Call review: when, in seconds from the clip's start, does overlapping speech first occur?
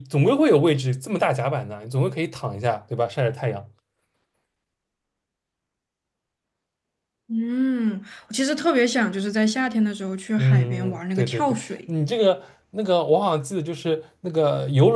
10.4 s

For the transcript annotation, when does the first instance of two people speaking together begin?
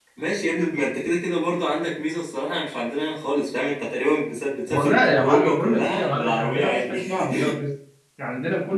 4.7 s

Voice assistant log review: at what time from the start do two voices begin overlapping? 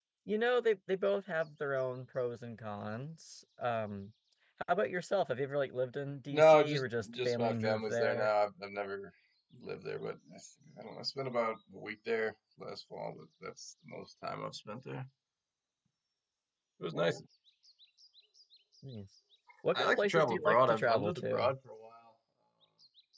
6.3 s

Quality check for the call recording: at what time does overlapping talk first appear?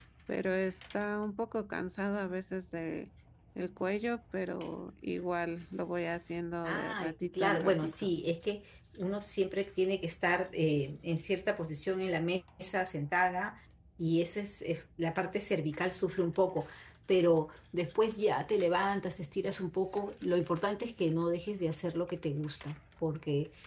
6.6 s

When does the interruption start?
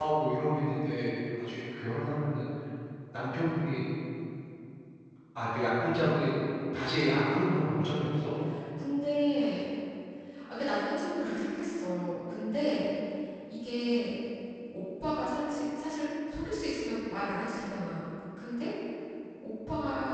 none

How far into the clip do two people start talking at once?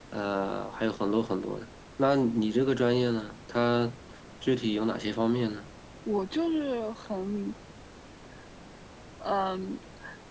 none

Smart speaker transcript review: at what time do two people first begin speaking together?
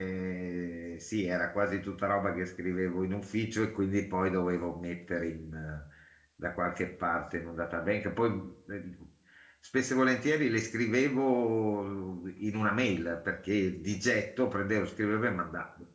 none

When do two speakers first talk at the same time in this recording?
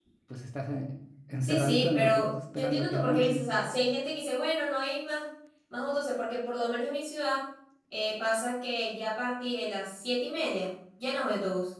1.4 s

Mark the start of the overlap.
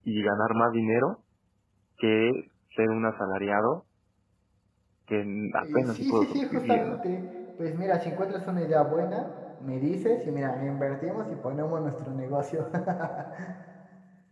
5.6 s

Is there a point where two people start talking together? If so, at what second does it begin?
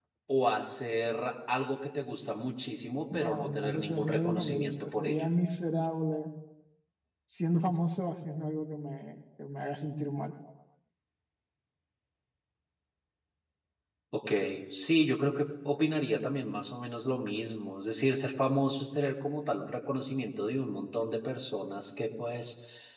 3.1 s

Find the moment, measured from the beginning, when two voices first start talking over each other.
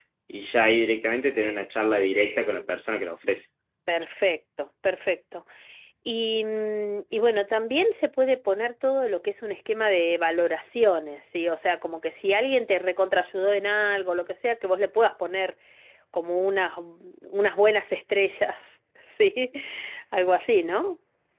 none

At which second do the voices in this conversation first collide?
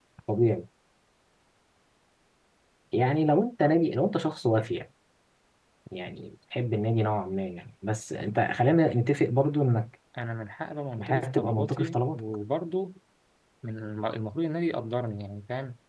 11.0 s

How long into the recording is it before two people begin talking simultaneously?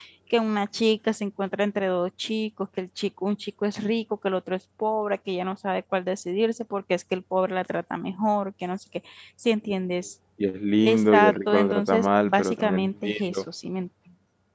10.8 s

